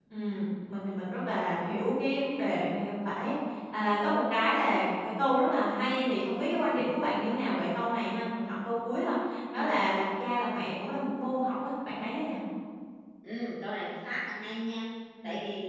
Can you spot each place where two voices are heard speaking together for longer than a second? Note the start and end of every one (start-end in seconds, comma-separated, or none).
none